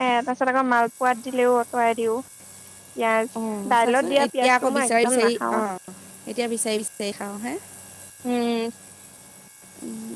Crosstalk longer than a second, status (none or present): present